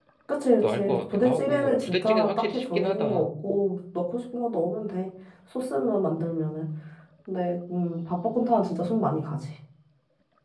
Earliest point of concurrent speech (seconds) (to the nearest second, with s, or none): 1 s